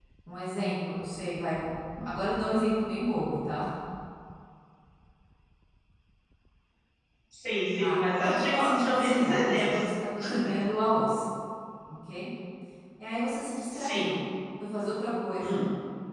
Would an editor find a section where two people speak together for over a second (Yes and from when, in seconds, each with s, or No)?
Yes, from 7.8 s